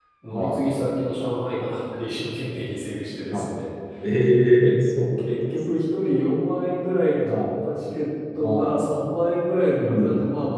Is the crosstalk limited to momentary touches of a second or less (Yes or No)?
Yes